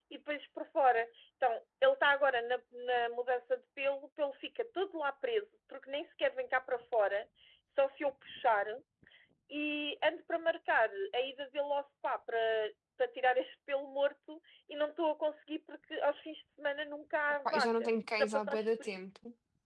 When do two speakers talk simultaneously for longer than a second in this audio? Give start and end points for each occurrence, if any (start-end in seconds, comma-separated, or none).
17.4-19.0